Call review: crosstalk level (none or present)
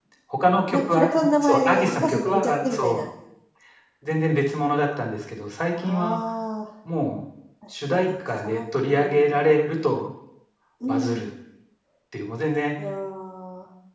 present